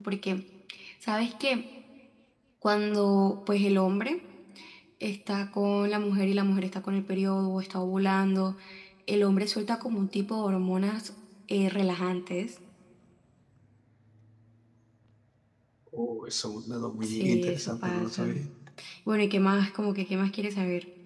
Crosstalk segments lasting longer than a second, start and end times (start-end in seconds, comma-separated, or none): 17.0-18.2